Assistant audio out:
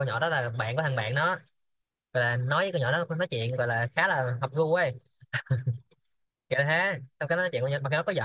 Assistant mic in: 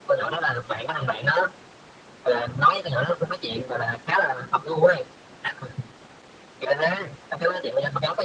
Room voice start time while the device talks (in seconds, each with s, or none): none